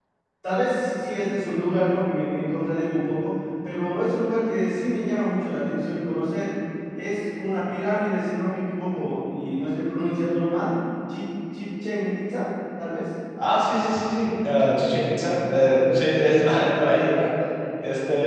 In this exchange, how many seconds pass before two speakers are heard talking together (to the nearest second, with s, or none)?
none